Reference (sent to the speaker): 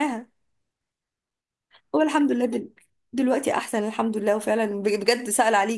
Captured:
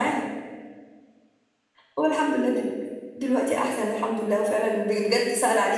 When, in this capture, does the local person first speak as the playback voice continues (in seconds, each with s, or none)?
none